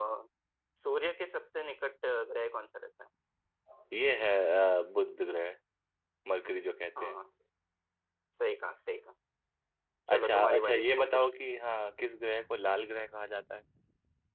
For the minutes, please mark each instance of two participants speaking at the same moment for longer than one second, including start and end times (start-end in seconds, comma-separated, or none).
10.1-11.3